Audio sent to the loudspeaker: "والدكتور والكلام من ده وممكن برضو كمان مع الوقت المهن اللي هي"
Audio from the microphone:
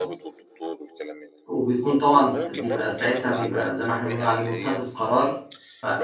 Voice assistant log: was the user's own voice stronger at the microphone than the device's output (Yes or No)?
Yes